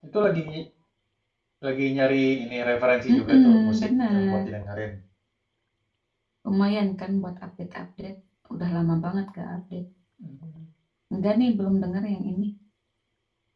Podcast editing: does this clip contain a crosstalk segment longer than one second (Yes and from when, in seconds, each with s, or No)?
Yes, from 3.1 s